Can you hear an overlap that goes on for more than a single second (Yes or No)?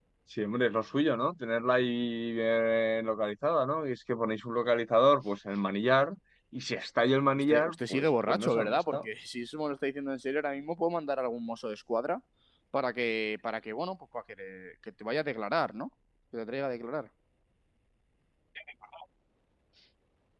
Yes